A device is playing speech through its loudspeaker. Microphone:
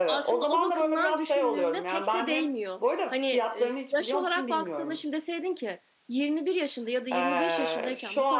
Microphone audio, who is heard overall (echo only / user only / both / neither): both